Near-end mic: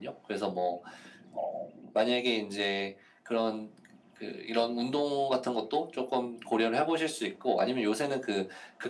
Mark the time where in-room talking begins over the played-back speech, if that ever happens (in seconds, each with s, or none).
none